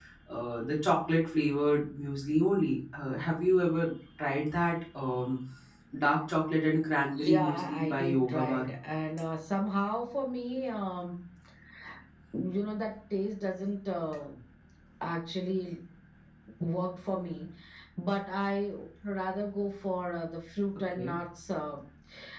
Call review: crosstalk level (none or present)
present